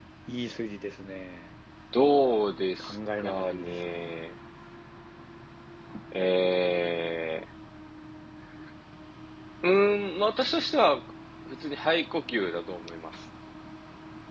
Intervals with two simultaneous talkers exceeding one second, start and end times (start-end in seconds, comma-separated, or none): 2.8-4.1